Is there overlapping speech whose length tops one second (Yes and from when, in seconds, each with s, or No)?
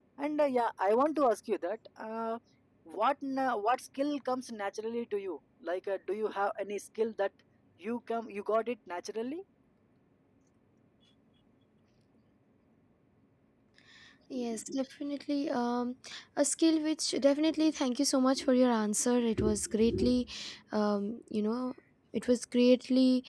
No